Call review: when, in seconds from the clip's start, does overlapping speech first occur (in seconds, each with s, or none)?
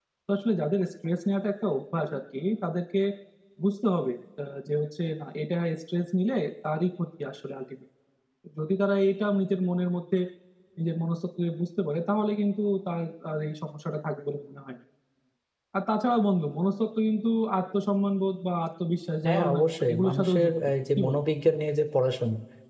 19.2 s